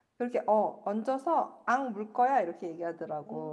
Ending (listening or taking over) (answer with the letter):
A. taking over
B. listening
A